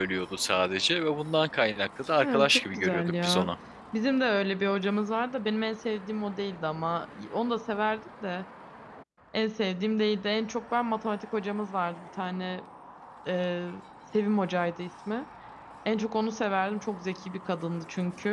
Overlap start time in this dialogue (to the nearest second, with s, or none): 2 s